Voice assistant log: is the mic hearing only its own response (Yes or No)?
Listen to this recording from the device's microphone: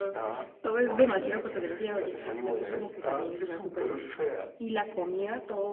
No